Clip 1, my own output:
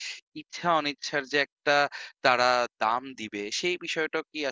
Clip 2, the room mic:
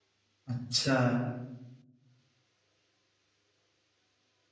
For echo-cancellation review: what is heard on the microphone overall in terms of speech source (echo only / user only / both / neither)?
user only